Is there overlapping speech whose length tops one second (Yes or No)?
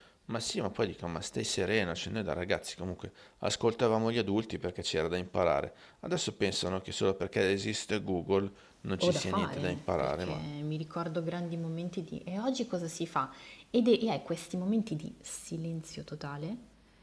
Yes